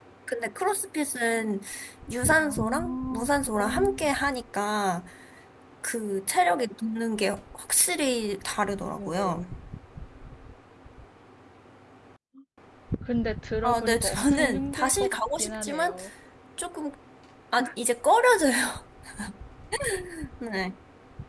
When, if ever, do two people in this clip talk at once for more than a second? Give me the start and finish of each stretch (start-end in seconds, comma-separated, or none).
2.4-4.1, 13.6-16.0